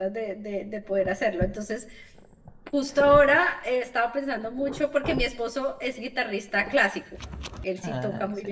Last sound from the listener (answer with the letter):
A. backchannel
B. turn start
A